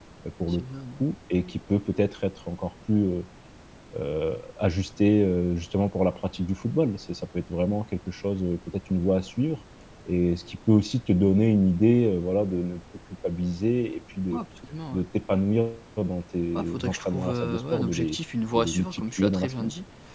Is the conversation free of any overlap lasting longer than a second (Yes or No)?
No